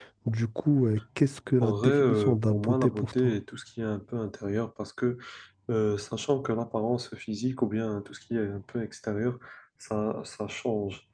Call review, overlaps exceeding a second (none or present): present